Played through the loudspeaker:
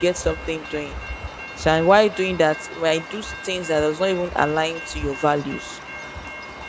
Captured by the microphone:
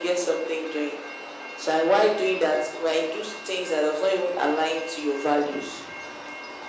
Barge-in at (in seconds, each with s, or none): none